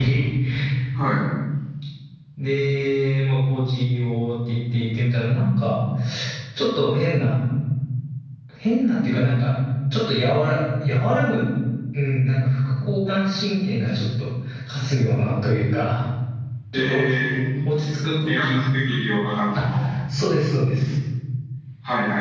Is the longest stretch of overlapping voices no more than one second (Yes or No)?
Yes